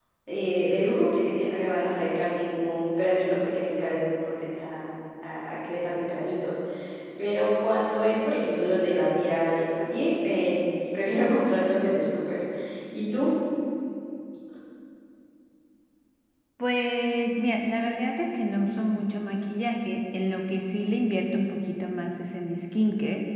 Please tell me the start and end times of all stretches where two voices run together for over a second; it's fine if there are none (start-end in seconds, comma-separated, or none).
none